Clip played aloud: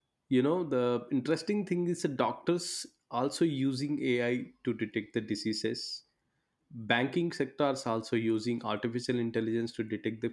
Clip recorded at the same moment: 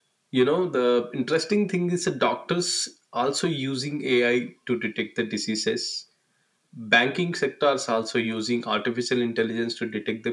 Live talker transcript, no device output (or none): none